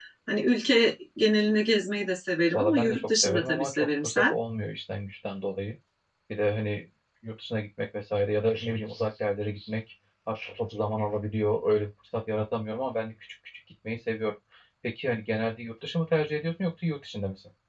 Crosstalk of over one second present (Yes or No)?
Yes